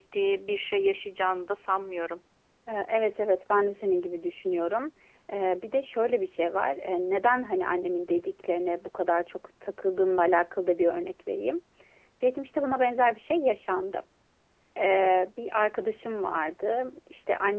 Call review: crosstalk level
none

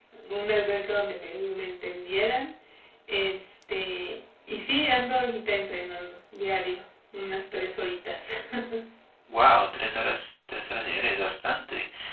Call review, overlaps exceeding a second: none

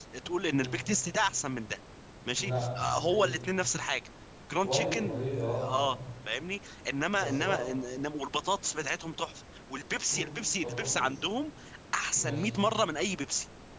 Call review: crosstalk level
present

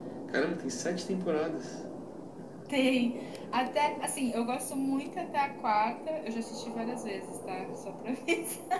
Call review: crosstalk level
none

